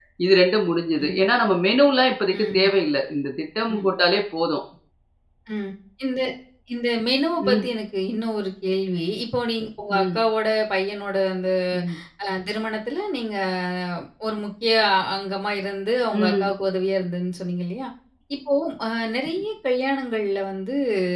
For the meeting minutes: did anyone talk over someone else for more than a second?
No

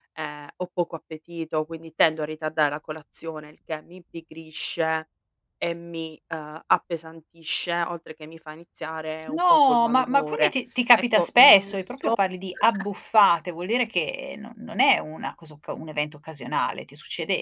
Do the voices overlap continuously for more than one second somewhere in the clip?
Yes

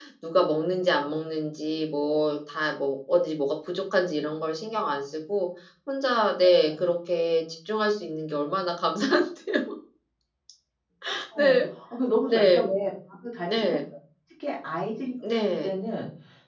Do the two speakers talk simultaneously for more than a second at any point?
No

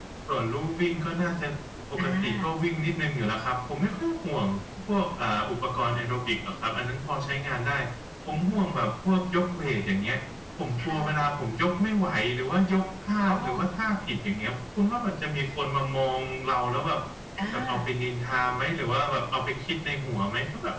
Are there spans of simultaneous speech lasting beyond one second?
No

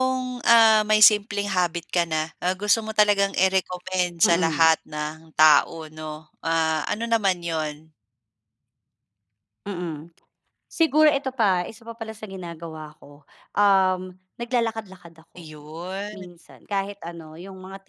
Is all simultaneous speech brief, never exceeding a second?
Yes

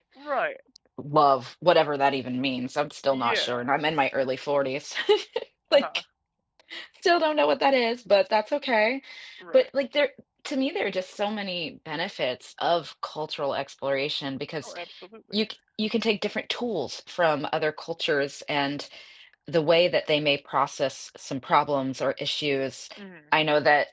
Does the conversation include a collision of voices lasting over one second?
No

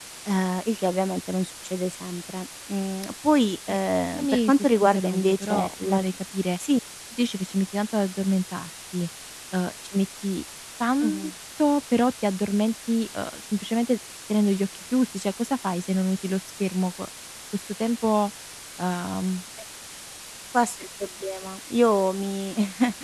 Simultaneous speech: Yes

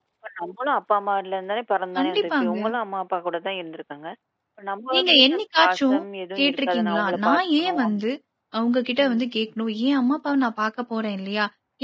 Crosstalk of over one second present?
Yes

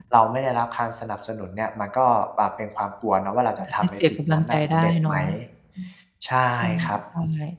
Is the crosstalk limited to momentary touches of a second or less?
No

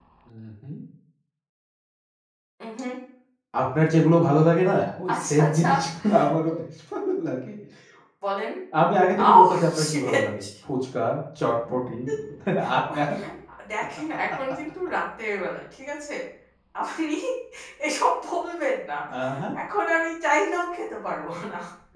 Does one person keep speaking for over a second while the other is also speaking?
Yes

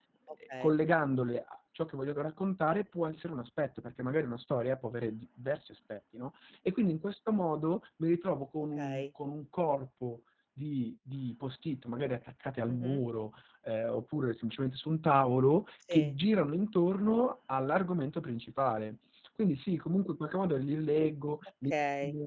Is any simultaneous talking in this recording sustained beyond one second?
No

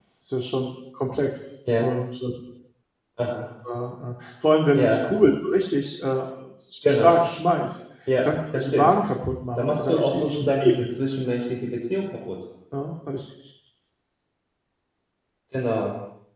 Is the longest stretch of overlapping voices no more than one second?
No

